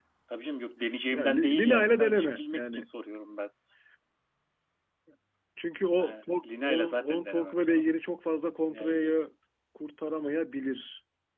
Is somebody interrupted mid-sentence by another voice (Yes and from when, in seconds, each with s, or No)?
Yes, from 1.1 s